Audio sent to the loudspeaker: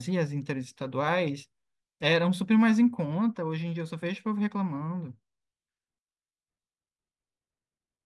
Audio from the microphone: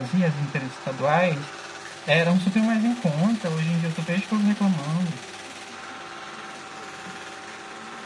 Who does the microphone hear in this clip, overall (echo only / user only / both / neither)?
echo only